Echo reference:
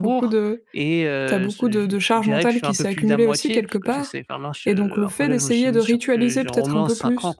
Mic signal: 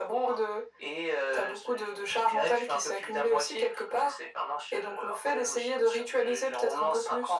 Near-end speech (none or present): none